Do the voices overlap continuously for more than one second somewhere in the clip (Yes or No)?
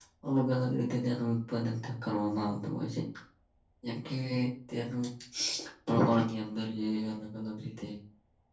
No